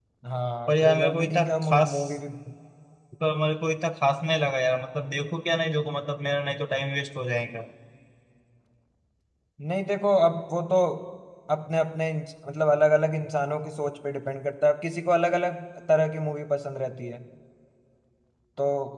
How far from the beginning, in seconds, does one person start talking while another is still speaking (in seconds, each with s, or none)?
0.7 s